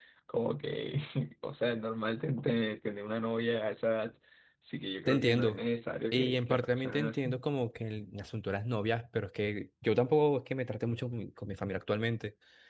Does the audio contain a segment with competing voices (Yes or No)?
Yes